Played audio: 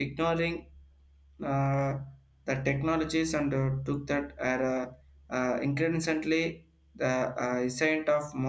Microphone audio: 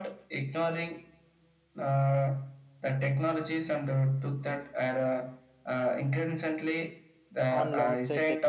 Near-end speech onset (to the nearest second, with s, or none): 7 s